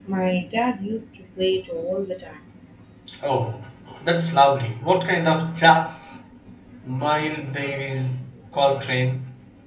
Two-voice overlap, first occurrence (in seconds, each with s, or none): none